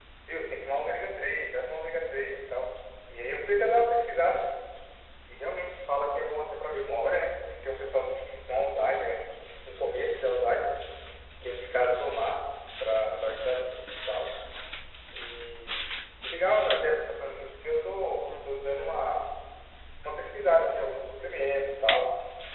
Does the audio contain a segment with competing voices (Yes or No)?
No